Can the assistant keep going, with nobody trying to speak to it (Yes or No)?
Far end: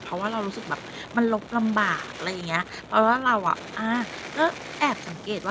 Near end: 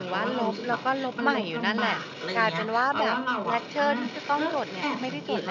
No